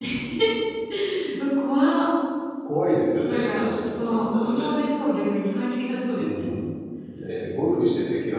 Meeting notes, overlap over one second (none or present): present